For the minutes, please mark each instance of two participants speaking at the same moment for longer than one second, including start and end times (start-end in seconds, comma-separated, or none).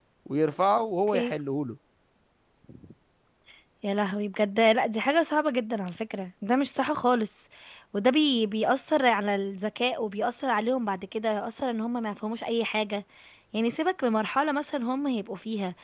none